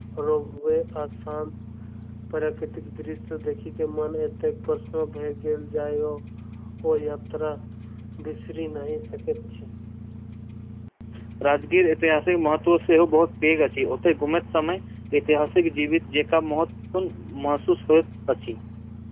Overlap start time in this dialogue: none

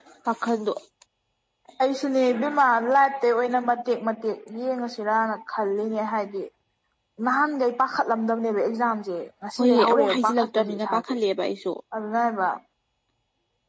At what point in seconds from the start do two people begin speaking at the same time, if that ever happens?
10 s

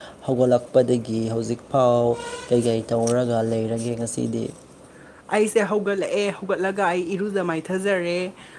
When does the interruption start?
none

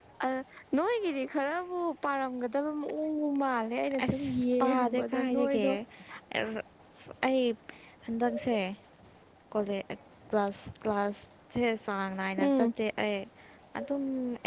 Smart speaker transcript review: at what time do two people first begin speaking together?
4 s

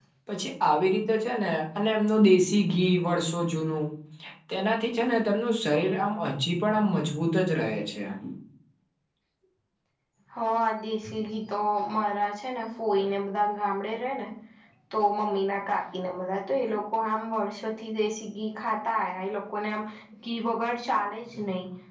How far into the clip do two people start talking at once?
none

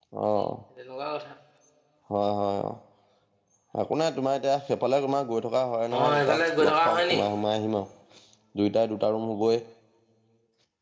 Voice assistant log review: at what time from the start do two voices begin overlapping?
6 s

